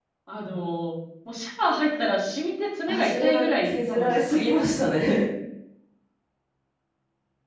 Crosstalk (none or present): present